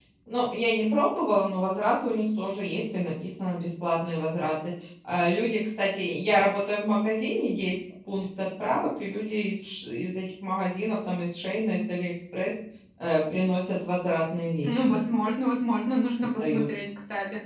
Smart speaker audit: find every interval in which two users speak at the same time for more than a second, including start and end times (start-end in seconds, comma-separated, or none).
none